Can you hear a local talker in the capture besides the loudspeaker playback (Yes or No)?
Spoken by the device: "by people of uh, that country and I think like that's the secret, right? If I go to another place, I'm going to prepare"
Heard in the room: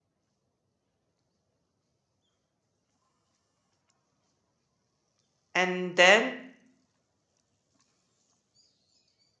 Yes